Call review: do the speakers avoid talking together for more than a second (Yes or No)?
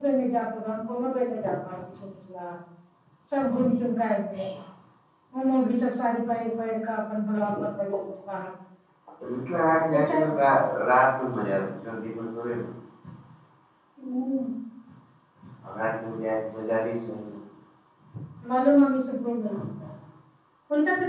Yes